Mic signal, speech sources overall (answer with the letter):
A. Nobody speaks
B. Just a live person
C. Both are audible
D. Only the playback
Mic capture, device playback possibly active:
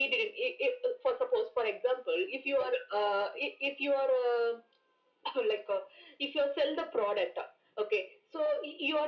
D